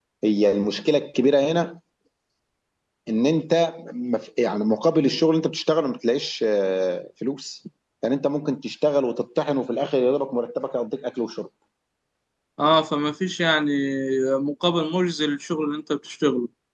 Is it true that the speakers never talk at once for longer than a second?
Yes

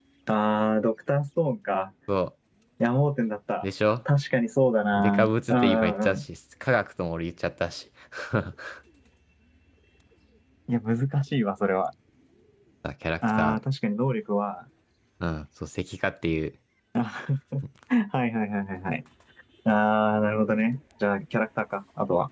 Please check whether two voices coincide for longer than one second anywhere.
Yes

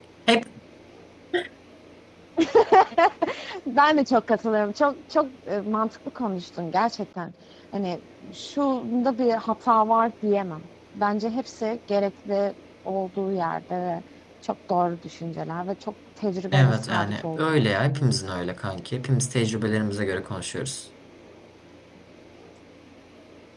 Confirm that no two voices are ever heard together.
No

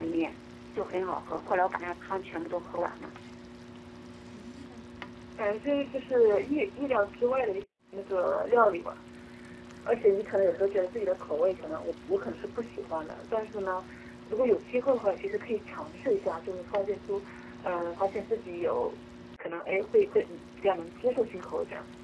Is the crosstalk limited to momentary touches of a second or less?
Yes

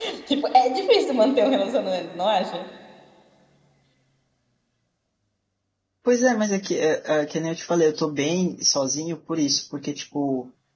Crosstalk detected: No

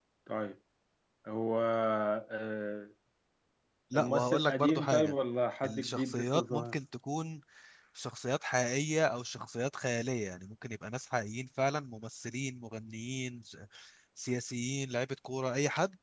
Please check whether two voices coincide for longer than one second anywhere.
Yes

